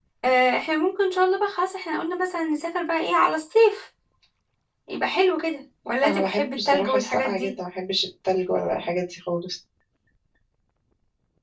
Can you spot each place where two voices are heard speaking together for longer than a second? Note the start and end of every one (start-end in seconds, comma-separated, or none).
6.0-7.6